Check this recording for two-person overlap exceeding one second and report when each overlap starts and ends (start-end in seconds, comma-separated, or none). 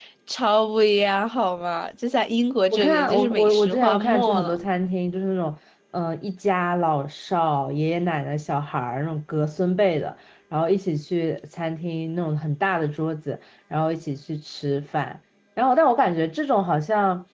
2.7-4.6